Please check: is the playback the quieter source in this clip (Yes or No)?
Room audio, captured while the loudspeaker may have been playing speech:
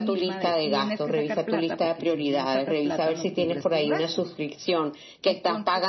No